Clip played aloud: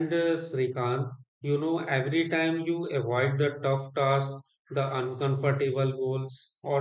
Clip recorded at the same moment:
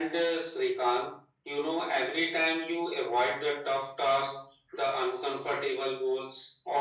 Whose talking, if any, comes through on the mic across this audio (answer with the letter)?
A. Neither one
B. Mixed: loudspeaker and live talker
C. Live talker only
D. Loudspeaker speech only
D